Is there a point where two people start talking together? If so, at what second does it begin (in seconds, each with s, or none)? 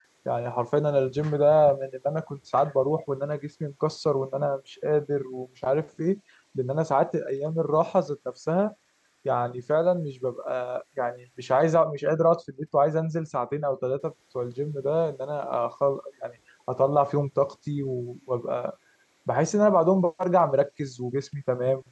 none